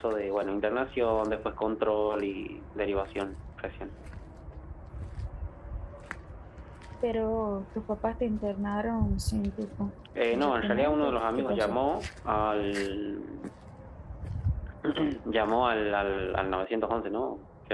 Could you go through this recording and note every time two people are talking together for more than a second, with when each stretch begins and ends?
10.3-11.7

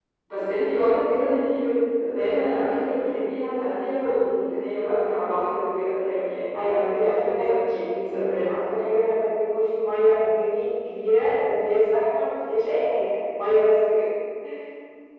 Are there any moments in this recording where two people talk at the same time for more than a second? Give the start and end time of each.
6.6-8.6

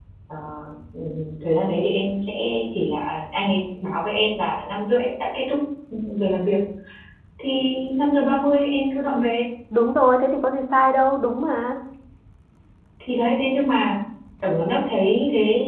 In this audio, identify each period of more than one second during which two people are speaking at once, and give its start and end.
none

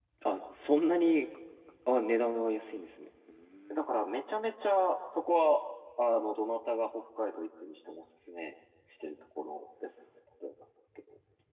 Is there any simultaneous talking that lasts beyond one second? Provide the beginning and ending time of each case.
none

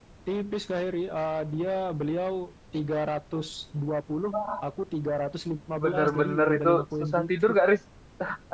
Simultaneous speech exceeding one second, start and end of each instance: 5.8-7.6

